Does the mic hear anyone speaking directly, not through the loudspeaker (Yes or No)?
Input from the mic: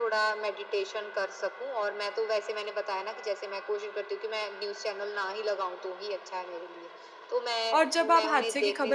Yes